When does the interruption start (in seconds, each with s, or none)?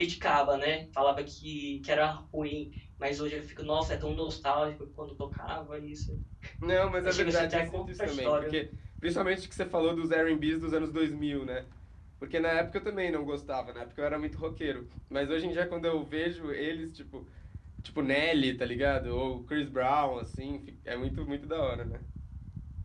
7.0 s